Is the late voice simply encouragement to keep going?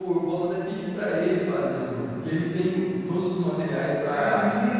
No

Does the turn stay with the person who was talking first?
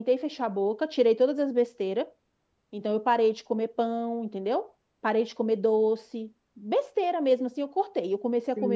No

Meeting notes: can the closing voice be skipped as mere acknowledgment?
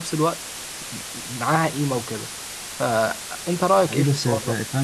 No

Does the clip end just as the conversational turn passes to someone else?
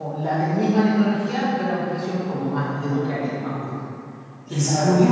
Yes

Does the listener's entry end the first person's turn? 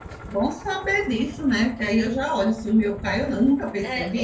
Yes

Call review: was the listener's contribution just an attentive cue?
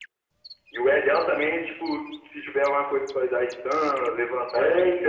No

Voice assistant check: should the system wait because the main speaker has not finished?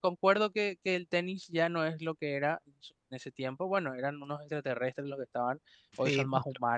Yes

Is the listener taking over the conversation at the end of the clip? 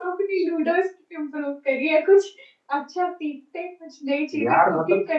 No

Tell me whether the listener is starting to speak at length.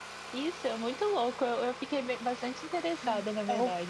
Yes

